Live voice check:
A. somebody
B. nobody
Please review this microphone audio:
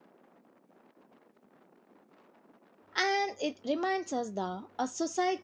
A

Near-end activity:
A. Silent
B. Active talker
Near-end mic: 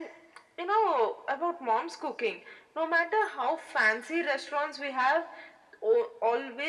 A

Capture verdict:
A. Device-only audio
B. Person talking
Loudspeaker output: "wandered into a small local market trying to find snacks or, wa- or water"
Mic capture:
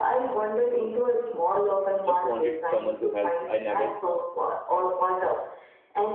B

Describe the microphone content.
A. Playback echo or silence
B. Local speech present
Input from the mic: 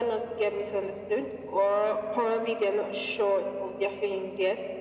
A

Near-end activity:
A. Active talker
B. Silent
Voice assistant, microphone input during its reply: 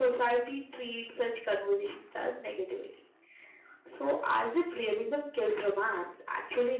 B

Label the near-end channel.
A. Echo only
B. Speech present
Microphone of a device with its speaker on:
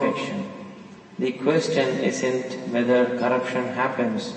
A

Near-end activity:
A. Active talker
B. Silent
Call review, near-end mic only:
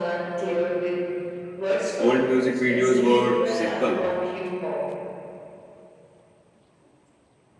A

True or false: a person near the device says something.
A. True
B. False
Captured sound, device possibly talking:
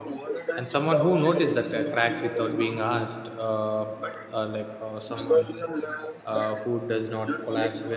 A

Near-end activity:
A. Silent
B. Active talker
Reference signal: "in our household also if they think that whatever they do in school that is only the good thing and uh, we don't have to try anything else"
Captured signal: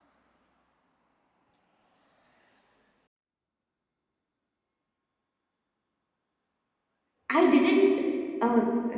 B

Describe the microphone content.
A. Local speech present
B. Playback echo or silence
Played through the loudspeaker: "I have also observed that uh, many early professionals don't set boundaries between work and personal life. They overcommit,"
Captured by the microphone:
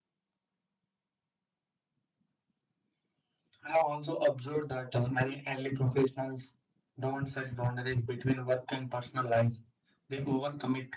B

